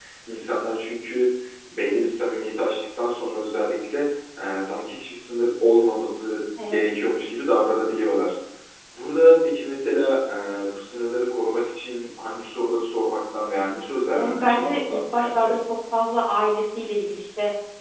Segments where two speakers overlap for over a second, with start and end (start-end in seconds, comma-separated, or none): 14.1-15.5